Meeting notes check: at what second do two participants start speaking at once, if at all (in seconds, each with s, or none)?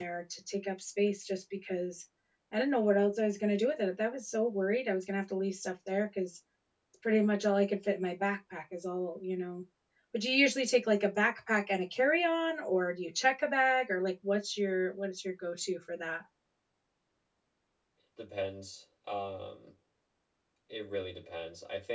none